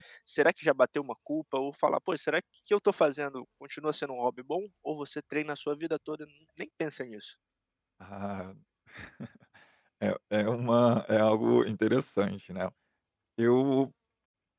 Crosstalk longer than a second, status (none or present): none